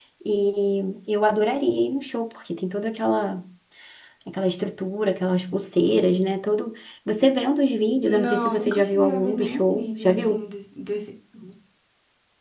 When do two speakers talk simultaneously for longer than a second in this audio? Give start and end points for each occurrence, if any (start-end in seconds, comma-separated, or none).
8.0-10.5